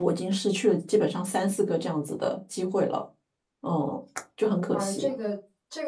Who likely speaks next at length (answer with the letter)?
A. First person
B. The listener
B